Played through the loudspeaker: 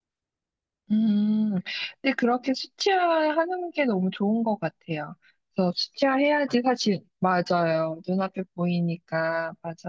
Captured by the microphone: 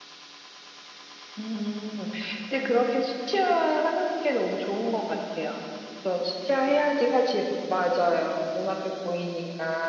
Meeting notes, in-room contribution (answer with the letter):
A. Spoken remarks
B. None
B